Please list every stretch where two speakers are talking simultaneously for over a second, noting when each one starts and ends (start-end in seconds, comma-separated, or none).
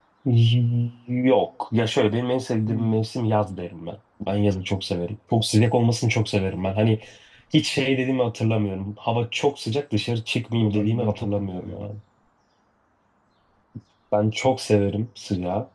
10.6-11.8